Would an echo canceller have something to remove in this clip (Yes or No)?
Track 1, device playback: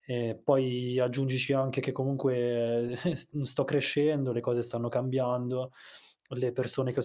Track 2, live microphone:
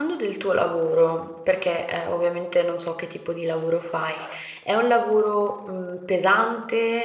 No